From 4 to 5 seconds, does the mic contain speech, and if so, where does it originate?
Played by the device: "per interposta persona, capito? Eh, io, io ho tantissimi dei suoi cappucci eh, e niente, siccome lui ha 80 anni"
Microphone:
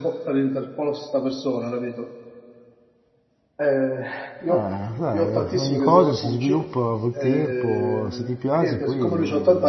both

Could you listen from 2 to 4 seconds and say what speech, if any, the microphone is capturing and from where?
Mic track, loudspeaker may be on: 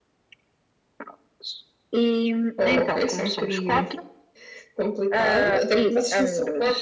echo only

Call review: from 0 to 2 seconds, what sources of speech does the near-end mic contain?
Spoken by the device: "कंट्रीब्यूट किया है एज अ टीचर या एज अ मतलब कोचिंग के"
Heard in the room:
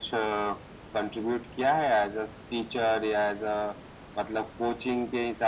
echo only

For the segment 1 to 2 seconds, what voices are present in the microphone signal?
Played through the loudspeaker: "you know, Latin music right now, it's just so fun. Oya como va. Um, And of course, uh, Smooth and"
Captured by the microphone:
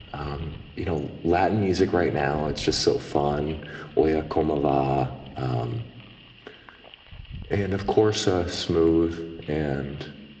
echo only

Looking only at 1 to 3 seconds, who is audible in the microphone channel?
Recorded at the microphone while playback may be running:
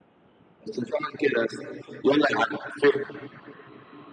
echo only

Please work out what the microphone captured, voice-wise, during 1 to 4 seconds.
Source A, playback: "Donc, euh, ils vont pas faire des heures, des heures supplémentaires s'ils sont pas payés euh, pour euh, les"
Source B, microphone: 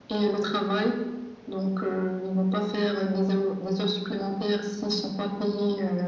echo only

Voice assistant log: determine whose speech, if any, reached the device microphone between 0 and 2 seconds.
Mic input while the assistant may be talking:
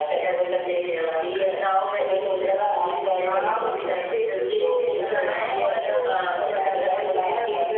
echo only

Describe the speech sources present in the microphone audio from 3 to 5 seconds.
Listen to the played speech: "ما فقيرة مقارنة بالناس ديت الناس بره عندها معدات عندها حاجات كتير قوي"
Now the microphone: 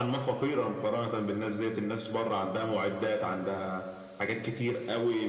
echo only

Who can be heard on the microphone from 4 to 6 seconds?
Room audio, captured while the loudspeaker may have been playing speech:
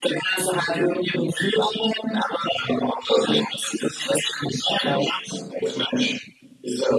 echo only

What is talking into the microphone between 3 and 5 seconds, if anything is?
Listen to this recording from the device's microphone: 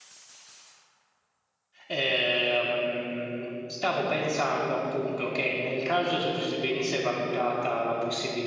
user only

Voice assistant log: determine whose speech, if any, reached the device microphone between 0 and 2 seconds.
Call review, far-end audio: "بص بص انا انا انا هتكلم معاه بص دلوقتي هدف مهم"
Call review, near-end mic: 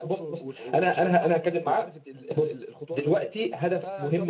both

